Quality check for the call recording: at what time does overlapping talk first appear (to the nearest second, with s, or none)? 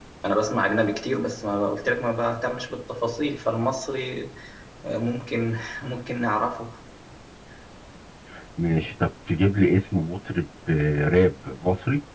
none